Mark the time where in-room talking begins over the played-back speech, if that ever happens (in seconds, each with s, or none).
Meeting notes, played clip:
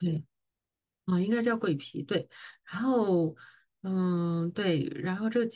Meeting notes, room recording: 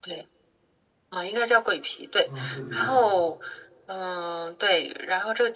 2.2 s